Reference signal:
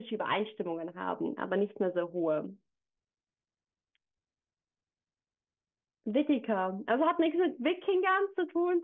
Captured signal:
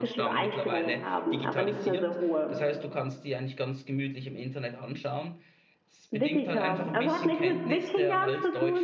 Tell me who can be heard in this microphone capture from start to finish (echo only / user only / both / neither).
both